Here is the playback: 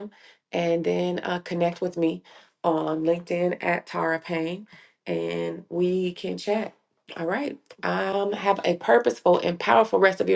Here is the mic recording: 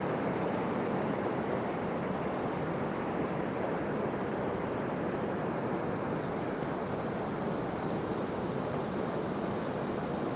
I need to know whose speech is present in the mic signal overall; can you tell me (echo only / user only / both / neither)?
neither